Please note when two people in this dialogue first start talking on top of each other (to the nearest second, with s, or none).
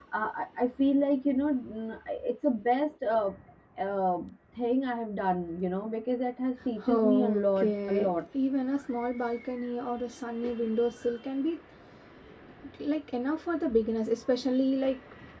7 s